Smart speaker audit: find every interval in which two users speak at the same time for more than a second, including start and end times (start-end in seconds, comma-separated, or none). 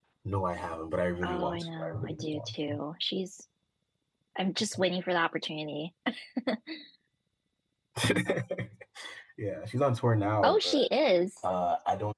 1.2-2.5